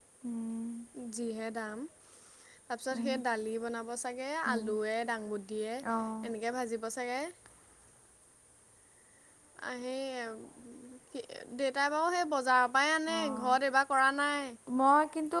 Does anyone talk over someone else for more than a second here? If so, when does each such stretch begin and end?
none

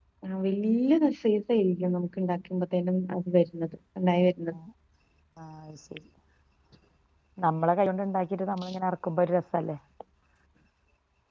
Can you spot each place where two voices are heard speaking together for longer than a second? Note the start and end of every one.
none

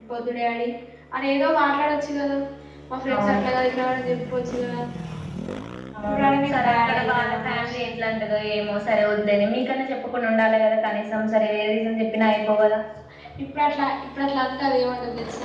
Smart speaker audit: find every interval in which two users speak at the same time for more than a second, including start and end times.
6.1-8.1

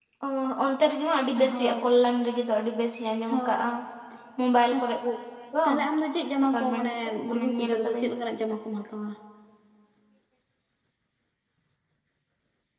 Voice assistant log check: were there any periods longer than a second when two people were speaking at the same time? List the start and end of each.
6.4-8.1

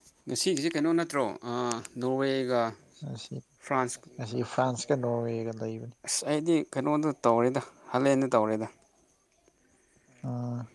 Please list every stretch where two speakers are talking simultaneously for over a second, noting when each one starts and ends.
none

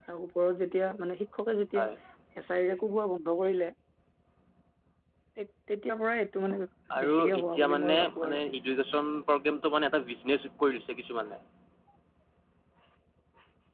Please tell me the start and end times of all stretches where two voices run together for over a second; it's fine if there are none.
7.0-8.4

